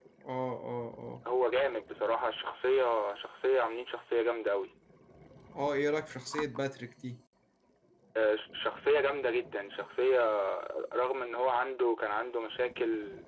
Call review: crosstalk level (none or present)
none